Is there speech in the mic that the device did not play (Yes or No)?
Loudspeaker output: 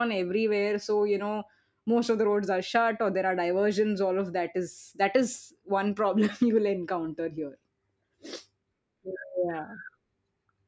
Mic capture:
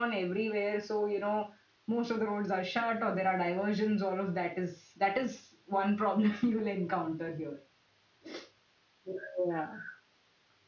No